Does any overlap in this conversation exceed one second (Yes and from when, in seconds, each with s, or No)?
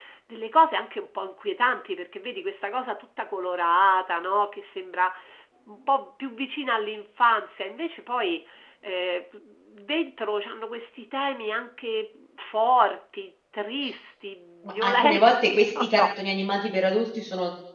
Yes, from 14.8 s